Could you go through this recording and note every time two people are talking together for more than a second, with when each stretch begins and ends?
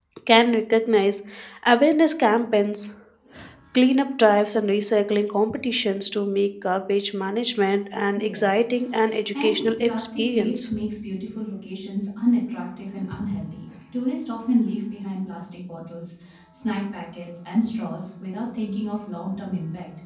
9.4-10.7

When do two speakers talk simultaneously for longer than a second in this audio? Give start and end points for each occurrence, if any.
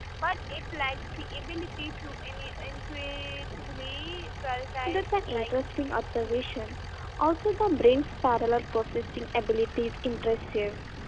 4.9-6.4

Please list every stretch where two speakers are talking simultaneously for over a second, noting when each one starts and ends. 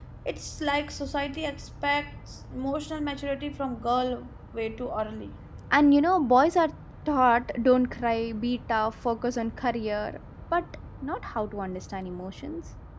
none

